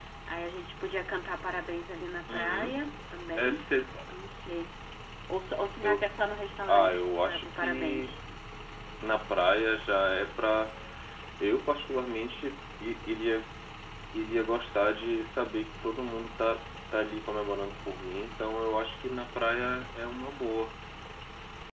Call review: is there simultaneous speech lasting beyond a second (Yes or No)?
Yes